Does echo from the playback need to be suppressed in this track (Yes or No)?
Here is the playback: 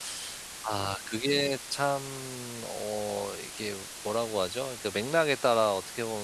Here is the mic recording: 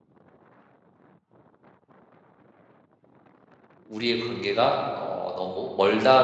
No